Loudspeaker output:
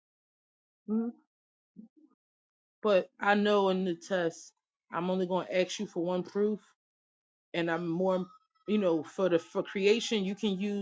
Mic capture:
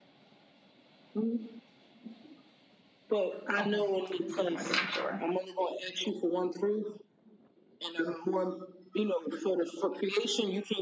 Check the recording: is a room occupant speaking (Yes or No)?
Yes